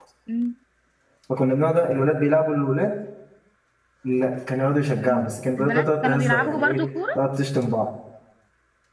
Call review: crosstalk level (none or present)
present